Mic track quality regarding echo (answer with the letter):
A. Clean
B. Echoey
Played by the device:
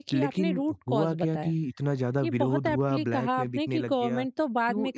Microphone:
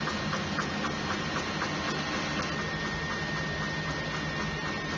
A